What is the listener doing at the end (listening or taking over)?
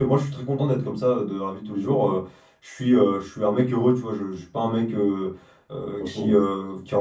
listening